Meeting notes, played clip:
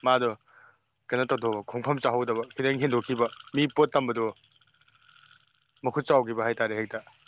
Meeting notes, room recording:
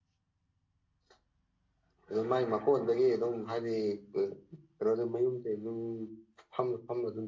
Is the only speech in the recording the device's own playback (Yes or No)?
No